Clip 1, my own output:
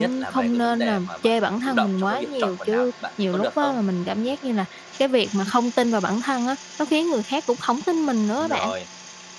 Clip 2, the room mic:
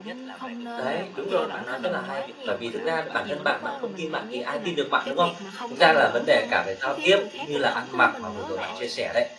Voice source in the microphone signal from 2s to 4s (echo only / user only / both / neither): both